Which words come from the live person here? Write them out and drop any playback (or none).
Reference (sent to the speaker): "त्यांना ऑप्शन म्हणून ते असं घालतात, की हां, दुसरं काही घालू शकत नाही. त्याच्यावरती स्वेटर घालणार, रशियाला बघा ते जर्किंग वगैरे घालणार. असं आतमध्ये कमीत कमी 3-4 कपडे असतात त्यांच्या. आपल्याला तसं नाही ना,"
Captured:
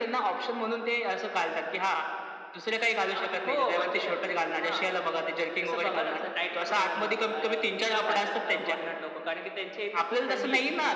अ, हो, म्हणजे हां. जसं बघा ना, असं टाईट कपडे घालणं. अ, ते का घालतात फॉरेनर लोकं? कारण की त्यांच्या इथं खूप थंडी आहे.